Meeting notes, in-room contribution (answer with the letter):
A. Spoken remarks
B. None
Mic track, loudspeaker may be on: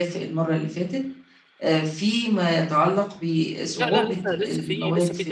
A